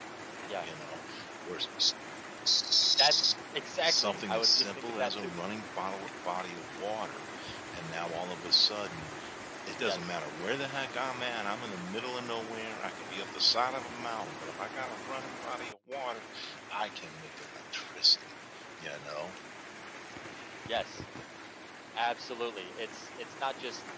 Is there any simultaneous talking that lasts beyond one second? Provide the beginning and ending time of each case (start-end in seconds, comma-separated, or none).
3.8-5.3